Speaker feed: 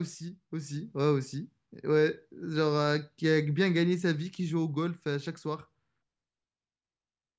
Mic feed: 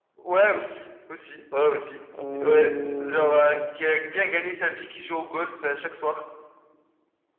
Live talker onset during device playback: 2.2 s

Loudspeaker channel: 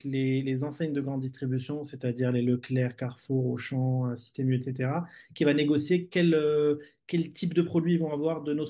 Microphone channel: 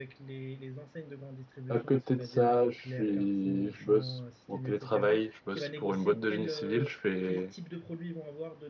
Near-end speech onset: 1.7 s

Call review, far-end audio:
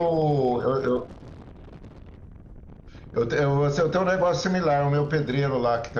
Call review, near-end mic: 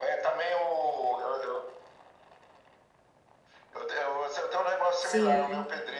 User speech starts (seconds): 5.0 s

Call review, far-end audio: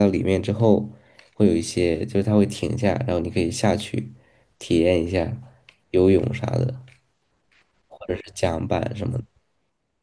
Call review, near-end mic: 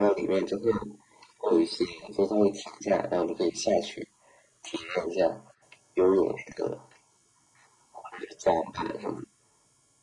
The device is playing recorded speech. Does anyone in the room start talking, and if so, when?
none

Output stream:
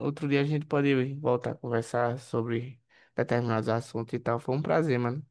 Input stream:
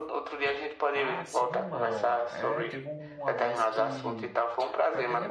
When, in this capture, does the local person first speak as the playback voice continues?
0.9 s

